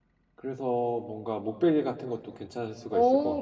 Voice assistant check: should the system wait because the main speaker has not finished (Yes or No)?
No